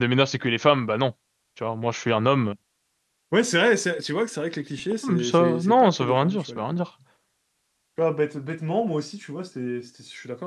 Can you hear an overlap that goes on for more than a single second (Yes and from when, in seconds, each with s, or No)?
Yes, from 5.0 s